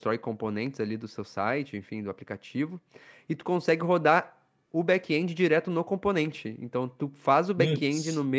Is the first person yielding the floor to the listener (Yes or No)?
No